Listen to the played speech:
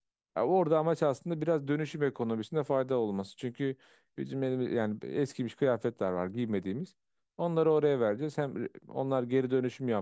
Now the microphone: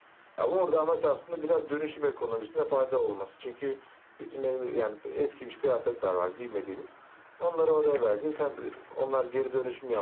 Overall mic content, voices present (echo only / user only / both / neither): echo only